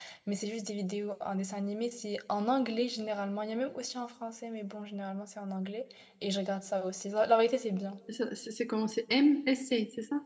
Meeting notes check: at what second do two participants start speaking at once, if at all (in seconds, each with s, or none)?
none